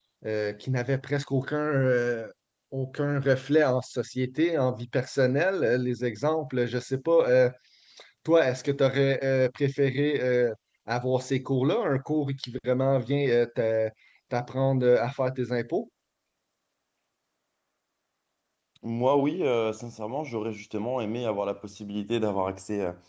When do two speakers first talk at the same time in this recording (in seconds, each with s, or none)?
none